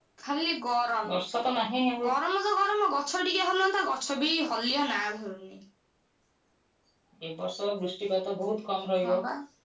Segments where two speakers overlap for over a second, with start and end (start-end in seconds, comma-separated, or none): none